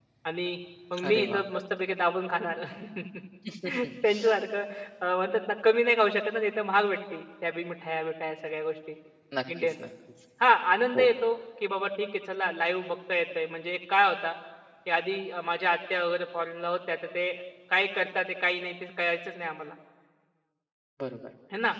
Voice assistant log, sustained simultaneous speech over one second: none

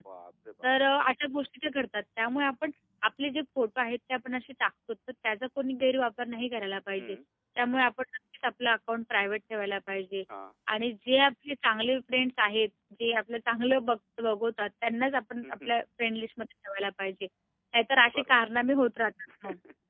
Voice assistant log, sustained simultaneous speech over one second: none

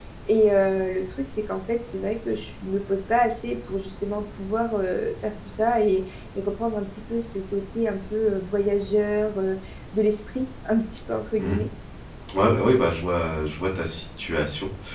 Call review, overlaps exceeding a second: none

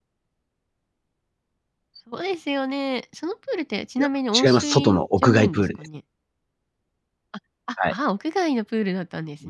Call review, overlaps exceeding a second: present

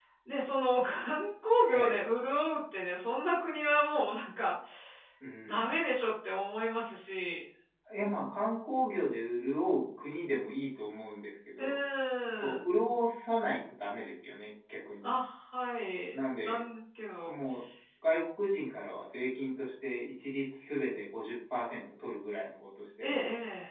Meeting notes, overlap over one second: none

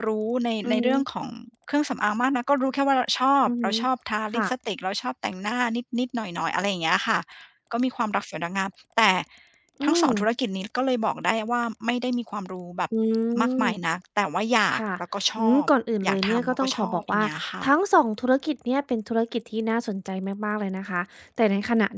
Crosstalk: present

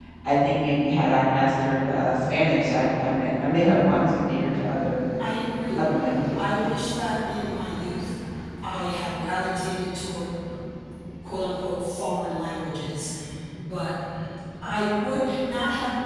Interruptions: none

